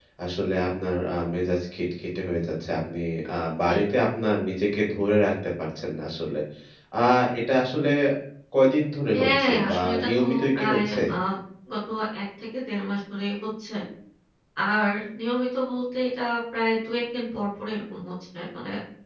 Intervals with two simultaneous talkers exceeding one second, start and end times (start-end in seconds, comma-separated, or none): 9.1-11.0